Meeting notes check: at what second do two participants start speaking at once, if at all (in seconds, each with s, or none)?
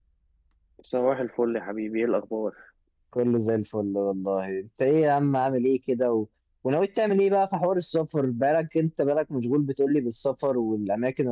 none